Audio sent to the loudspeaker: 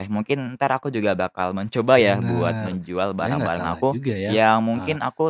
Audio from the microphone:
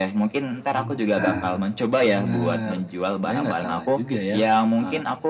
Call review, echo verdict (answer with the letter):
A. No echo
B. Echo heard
B